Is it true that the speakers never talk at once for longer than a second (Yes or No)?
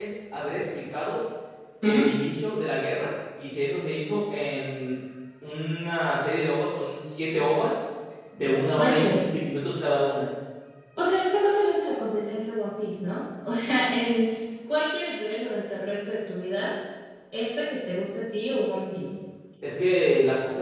Yes